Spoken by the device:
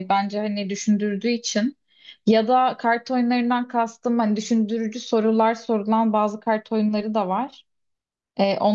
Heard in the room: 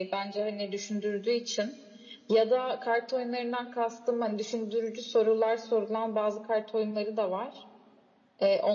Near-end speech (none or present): none